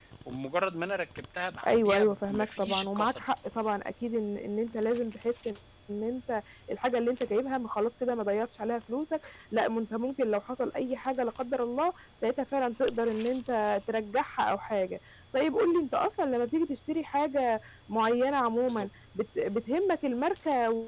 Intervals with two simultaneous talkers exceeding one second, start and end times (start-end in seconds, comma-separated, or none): 1.7-3.2